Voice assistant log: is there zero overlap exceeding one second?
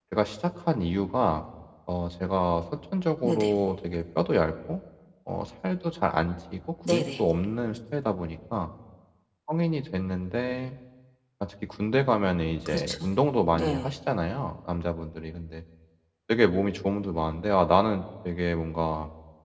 Yes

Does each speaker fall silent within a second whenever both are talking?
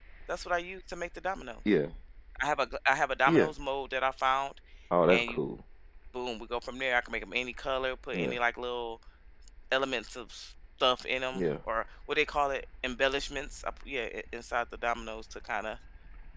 Yes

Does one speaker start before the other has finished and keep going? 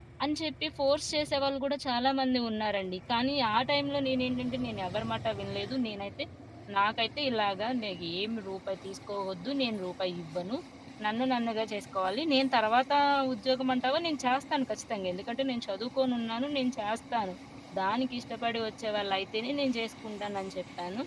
No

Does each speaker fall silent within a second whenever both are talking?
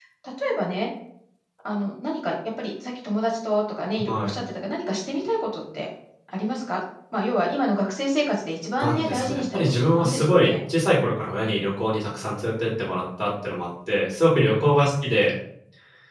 No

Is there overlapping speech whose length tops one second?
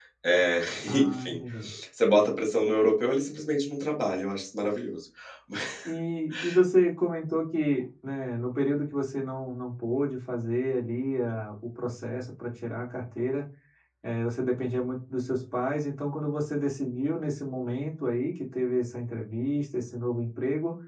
No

